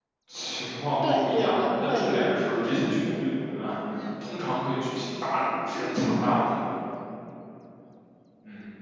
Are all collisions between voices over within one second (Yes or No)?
No